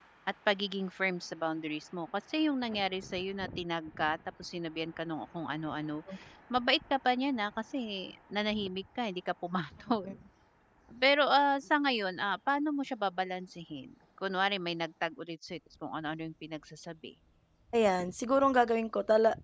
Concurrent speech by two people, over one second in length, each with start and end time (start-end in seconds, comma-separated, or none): none